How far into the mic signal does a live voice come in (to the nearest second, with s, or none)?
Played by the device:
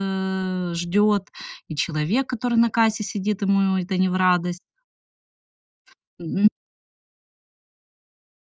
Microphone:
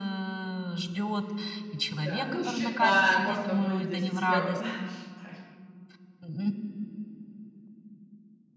2 s